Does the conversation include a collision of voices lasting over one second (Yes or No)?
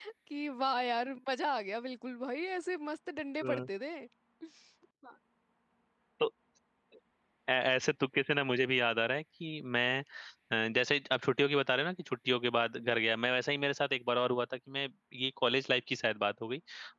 No